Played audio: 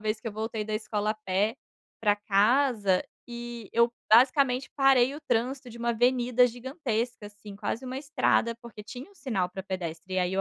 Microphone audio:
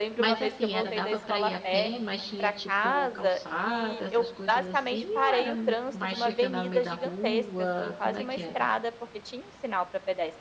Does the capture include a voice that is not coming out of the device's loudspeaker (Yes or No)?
Yes